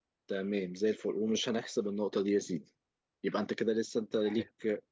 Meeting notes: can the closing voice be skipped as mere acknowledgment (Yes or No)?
Yes